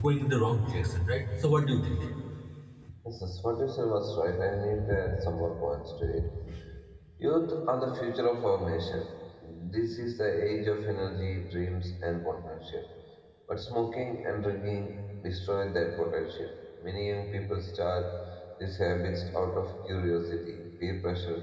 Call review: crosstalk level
none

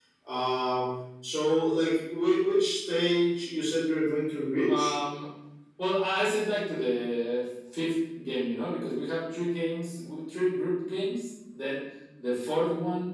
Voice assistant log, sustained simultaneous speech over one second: none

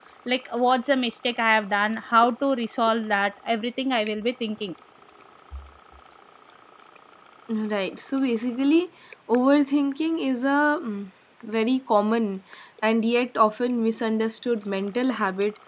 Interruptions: none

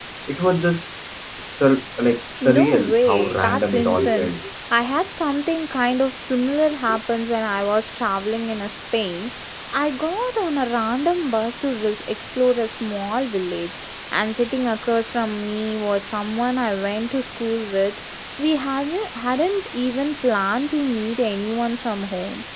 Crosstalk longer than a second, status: present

